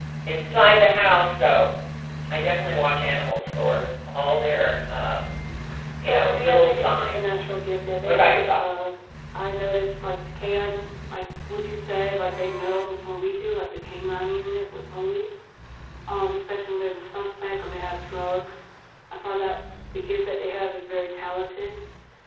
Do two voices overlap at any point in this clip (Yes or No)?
Yes